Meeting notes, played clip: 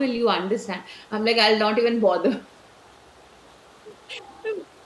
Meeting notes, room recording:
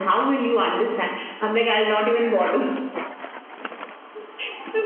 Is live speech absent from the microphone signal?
Yes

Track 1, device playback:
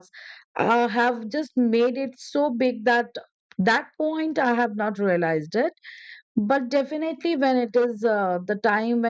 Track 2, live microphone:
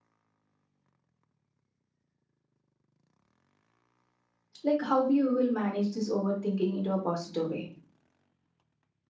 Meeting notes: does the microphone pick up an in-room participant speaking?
Yes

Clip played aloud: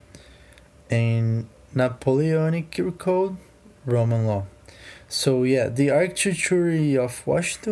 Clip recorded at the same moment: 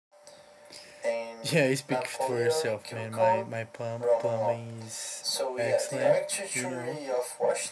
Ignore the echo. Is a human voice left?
Yes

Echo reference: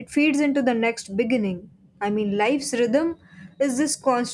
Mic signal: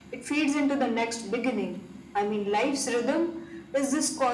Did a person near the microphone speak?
No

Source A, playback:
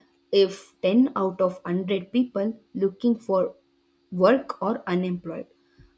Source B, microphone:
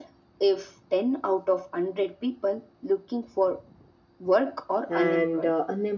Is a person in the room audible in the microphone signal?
Yes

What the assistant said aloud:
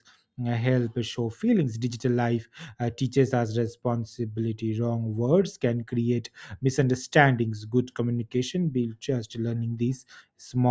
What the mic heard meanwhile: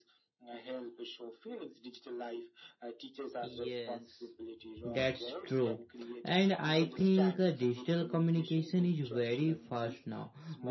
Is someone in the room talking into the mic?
Yes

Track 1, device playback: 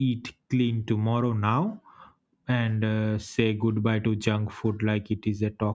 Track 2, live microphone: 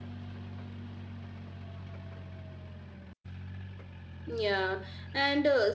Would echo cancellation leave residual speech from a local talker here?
Yes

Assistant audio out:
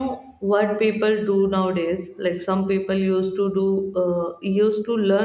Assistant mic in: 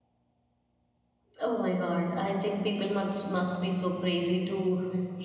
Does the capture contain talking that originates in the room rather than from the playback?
Yes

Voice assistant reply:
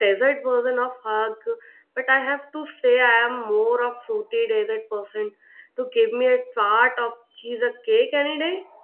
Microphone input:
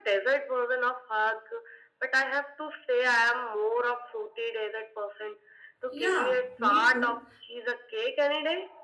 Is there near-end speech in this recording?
Yes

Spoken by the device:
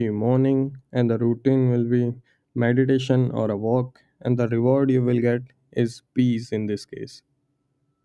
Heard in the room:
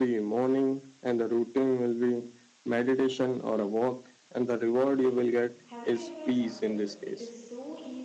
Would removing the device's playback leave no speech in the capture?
No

